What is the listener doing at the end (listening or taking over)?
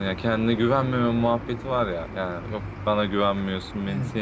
listening